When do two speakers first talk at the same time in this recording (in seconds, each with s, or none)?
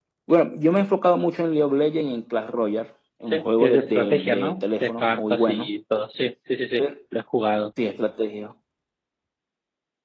3.3 s